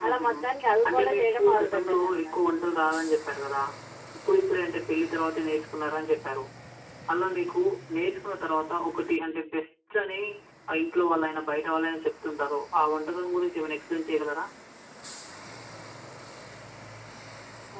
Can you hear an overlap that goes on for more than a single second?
Yes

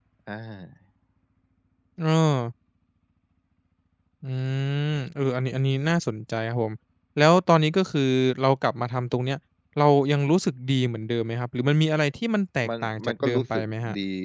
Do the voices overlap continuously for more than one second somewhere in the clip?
Yes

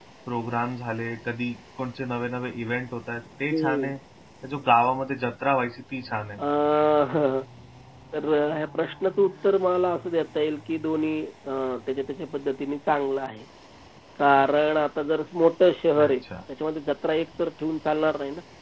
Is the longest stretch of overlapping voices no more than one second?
Yes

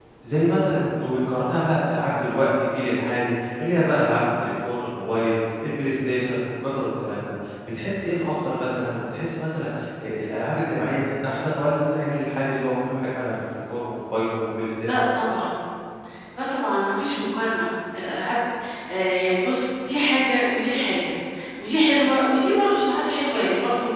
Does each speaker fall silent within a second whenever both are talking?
Yes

